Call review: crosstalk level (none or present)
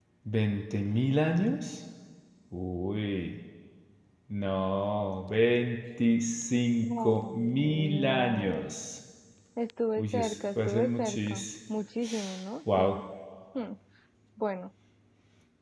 present